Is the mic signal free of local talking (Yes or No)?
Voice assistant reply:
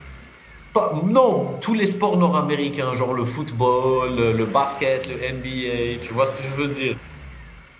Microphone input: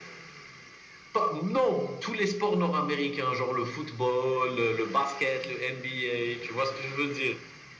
Yes